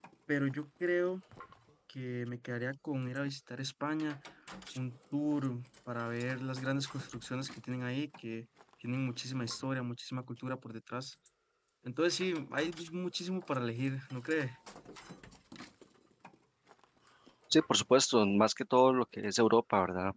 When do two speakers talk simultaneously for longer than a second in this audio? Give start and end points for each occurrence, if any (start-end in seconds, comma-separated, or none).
none